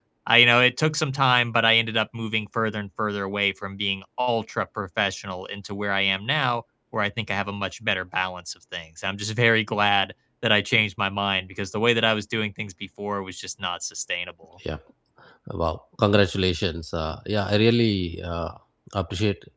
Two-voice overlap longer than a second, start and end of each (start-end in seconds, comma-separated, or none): none